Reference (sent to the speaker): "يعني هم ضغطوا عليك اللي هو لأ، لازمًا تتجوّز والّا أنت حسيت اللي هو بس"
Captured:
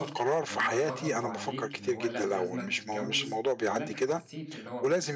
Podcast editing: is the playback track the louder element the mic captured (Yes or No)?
No